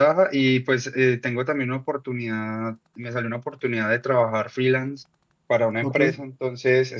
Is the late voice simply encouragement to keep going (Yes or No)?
Yes